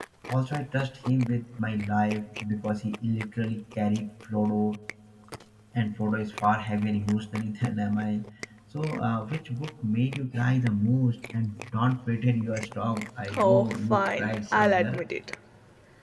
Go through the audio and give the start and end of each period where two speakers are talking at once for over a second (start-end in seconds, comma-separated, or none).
13.4-15.0